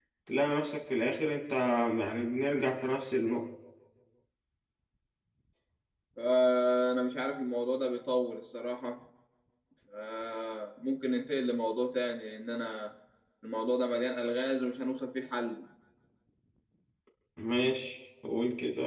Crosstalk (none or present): none